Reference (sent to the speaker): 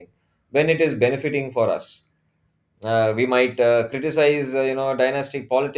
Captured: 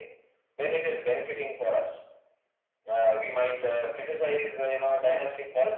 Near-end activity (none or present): none